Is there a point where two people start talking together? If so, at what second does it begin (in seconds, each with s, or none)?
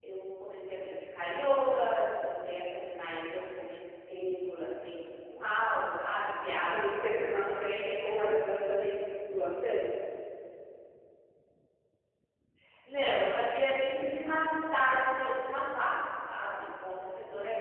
6.7 s